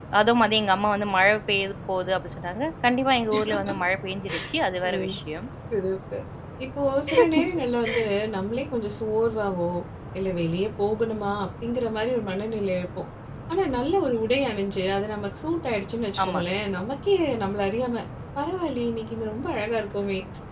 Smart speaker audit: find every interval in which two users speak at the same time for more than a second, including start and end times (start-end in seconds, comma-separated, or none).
none